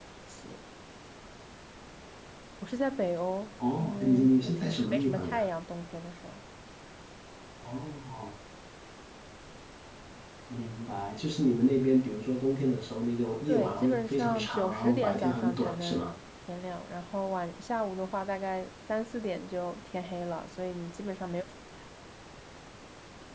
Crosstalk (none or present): present